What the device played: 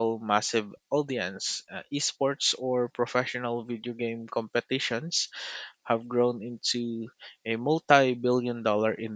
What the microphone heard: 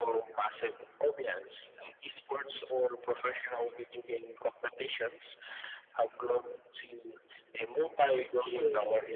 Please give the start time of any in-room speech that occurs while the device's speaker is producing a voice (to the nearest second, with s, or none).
8 s